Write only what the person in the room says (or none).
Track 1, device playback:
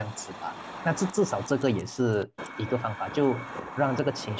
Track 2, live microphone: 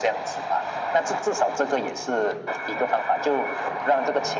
none